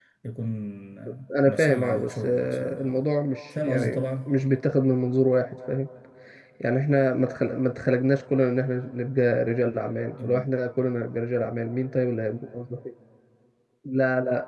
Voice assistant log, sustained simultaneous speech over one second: present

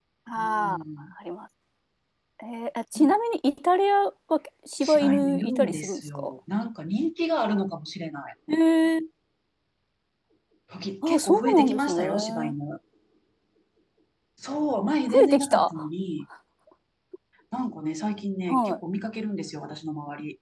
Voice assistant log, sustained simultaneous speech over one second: present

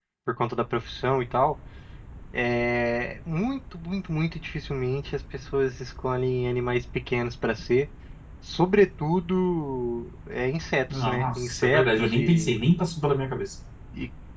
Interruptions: present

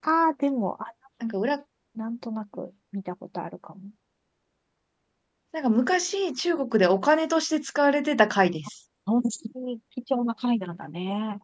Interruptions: none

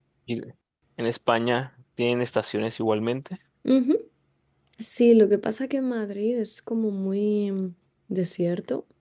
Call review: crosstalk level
none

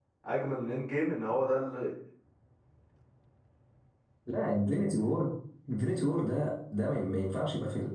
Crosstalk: none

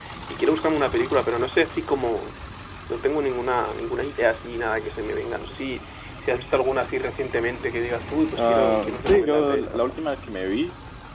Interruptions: present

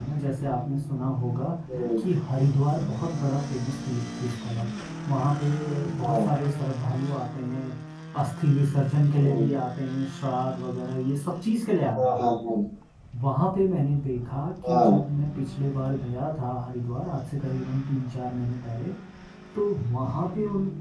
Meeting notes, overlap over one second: none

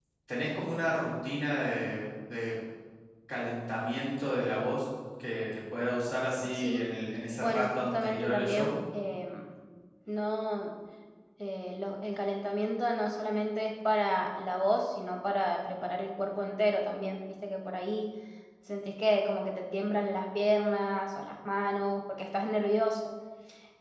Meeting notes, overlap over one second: present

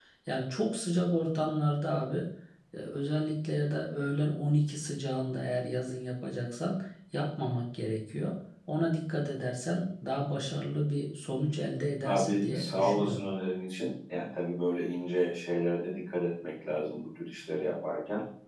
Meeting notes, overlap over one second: present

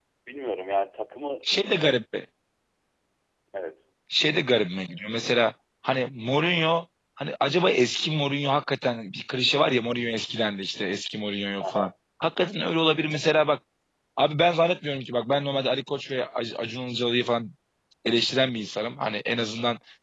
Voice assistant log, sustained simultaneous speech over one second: none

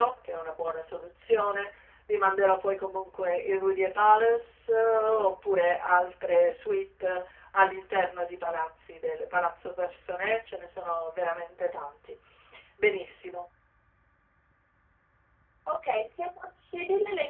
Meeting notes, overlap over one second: none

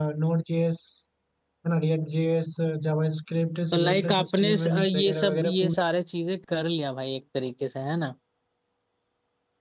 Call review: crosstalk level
present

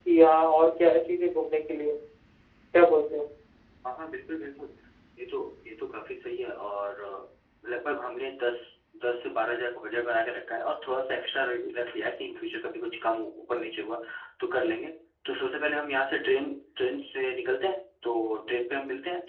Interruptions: none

